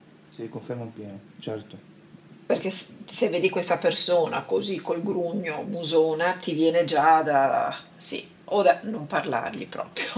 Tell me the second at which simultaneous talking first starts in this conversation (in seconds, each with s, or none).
none